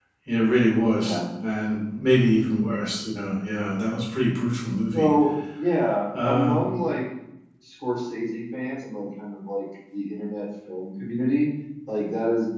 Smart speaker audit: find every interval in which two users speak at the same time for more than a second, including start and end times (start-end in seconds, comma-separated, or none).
none